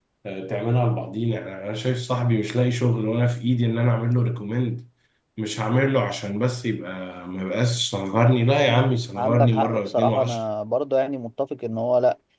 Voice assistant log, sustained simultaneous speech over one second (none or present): present